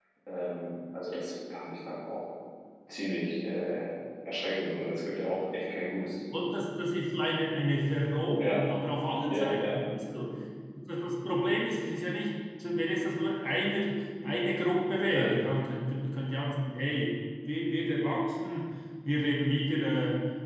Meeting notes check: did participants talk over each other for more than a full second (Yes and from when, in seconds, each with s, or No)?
No